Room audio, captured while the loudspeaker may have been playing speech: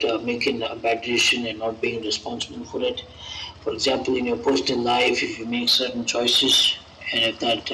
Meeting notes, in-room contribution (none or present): none